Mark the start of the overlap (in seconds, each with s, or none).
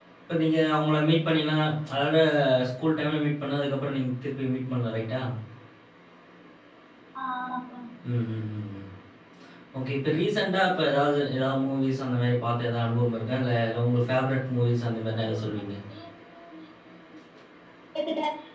none